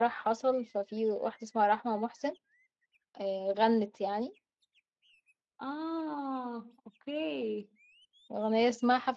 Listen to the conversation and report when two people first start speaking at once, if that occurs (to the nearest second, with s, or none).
none